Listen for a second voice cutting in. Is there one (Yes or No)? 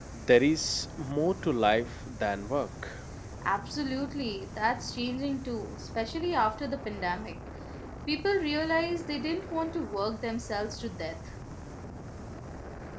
No